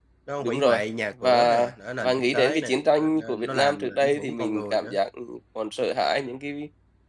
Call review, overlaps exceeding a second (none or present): present